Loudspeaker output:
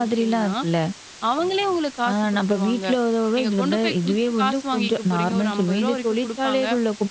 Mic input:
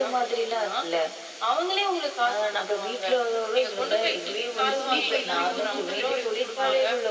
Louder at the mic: echo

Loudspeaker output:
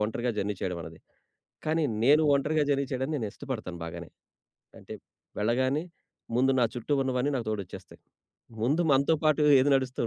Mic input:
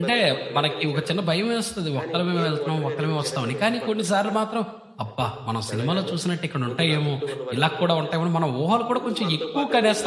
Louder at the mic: user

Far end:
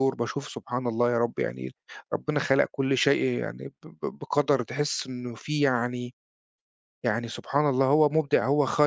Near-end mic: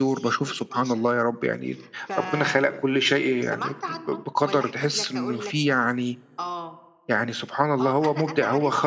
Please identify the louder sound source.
echo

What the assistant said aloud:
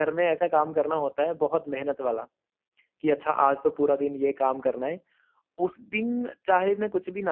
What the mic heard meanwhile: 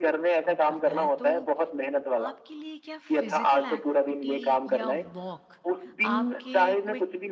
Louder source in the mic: echo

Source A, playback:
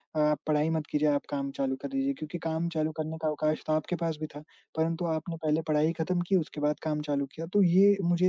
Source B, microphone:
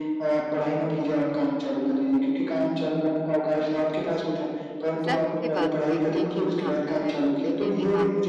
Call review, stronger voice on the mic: echo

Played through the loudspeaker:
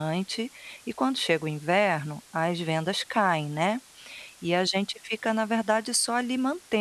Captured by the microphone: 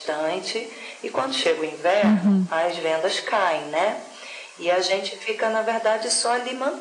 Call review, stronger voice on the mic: user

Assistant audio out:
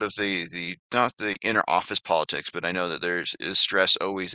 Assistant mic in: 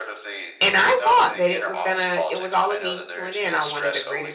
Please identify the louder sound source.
user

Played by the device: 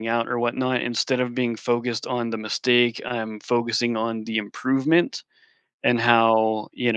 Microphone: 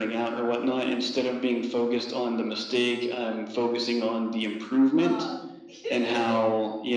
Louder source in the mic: echo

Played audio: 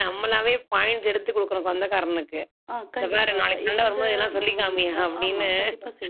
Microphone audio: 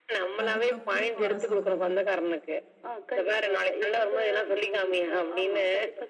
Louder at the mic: echo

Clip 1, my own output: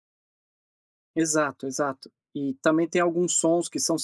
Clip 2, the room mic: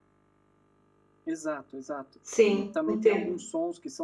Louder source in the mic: user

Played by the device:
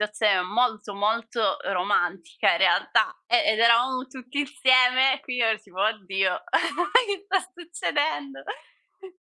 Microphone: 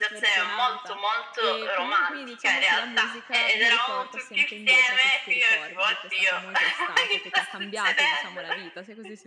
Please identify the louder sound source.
echo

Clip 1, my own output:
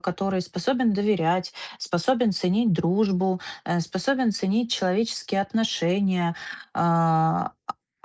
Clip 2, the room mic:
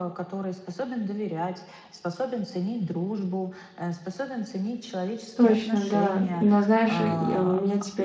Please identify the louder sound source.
user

